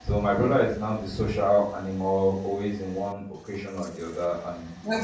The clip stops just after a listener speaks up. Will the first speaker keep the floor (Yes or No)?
No